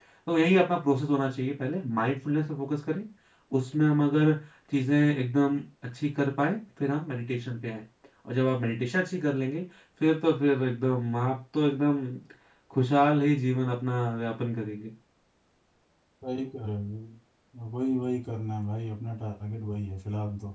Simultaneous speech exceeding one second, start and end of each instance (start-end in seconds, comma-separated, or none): none